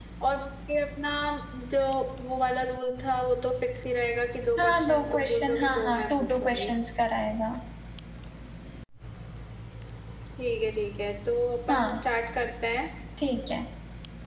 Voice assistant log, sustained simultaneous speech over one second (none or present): present